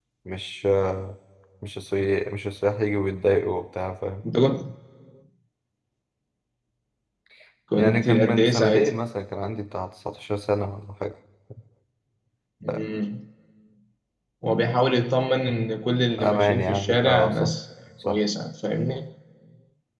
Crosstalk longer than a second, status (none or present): present